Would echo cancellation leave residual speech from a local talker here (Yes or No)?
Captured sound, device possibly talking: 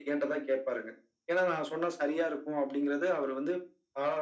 No